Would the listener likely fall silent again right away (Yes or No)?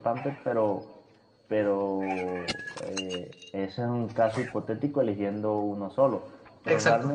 Yes